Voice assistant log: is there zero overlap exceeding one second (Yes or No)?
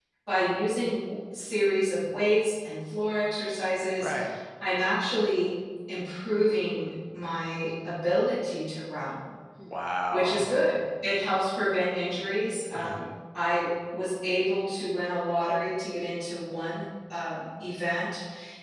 Yes